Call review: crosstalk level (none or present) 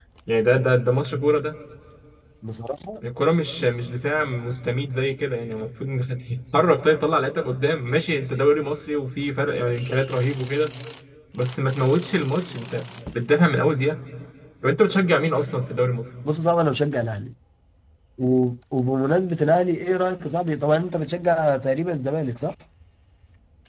none